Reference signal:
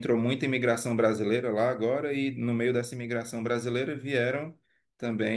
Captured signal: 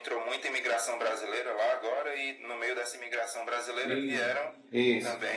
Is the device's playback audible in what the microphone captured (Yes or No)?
Yes